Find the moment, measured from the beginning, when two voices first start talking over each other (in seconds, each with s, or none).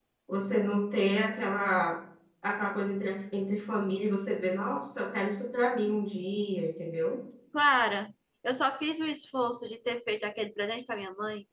none